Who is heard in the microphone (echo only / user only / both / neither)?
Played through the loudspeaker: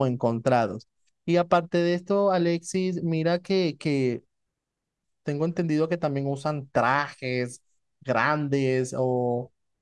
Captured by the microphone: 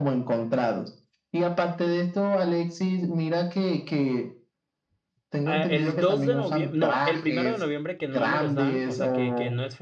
both